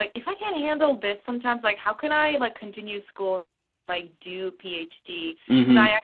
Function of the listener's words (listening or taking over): listening